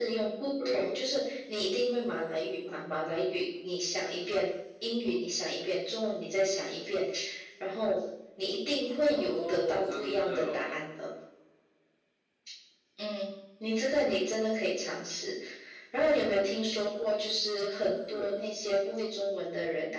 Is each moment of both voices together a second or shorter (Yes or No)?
No